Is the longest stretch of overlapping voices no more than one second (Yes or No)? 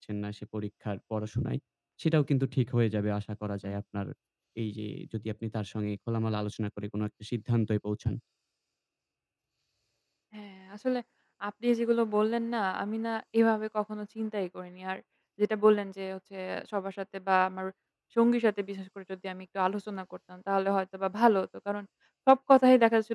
Yes